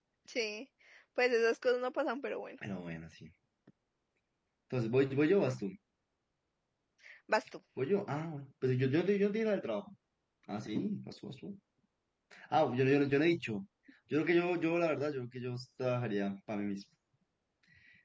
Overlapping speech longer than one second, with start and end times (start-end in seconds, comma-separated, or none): none